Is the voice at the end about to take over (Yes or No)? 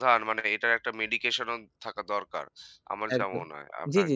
Yes